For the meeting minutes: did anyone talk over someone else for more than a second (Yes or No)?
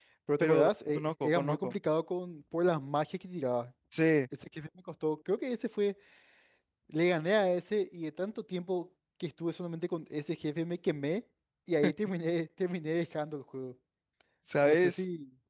Yes